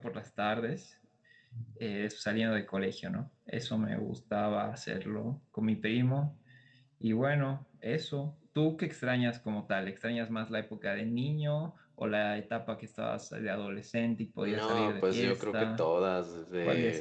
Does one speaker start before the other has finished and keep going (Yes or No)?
Yes